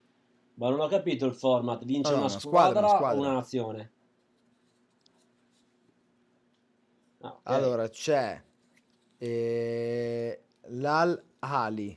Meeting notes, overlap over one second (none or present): present